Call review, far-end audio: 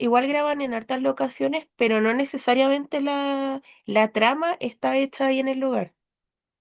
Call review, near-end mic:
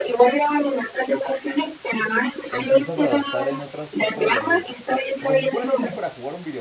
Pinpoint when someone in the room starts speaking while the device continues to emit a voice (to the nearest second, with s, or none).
2 s